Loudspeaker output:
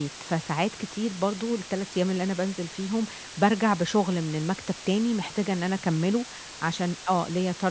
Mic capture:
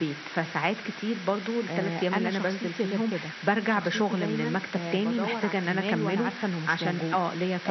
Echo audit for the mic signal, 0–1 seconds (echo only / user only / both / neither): echo only